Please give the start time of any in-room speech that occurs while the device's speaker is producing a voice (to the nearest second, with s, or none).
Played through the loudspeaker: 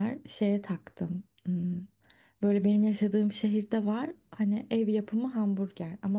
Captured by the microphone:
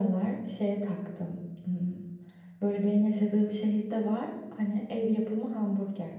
none